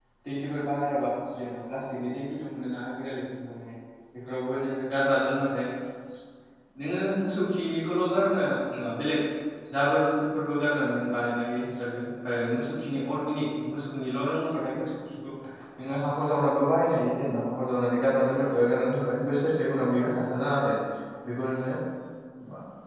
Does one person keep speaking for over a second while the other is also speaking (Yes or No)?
No